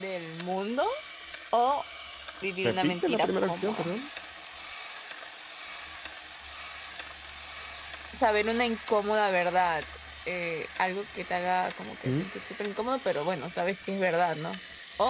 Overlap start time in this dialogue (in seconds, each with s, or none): 2.6 s